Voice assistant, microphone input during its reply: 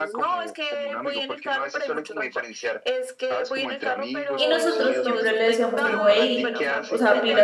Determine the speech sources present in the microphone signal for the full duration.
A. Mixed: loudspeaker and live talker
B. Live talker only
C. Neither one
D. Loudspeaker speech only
A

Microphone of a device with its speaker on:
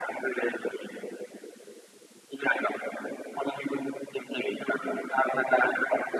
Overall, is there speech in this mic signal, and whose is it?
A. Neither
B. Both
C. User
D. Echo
D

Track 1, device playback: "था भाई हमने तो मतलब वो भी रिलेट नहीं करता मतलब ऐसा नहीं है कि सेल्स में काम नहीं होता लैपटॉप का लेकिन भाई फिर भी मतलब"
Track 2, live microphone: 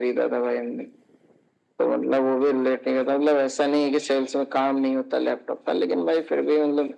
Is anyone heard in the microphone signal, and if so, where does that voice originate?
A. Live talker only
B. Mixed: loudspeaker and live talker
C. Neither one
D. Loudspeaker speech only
D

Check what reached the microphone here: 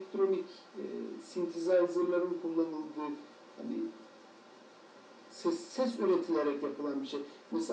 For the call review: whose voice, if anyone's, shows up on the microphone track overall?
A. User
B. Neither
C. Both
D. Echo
D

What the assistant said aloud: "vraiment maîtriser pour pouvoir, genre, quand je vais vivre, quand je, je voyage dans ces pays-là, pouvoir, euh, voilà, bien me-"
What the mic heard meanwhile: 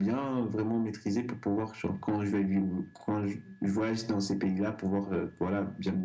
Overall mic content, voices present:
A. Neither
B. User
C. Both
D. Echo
D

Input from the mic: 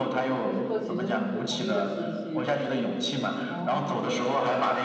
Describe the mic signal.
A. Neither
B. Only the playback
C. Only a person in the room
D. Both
D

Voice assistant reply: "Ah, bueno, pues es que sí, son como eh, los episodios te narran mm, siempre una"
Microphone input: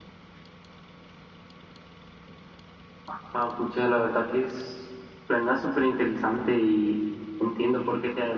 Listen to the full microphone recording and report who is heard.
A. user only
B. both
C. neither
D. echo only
A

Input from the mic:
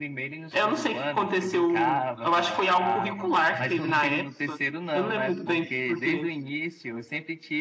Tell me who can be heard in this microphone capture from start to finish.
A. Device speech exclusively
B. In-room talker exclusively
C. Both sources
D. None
A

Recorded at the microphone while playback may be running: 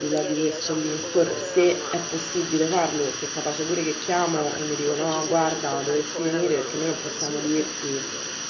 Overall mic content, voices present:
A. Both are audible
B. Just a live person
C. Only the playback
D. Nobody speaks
A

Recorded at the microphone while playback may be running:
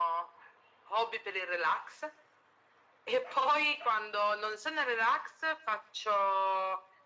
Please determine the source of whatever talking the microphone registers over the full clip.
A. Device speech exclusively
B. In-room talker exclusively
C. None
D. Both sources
A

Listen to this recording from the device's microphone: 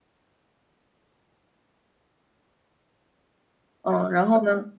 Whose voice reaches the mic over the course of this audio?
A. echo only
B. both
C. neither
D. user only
D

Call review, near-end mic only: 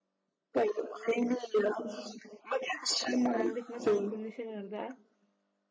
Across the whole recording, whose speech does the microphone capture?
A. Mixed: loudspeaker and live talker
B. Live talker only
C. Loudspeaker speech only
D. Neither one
A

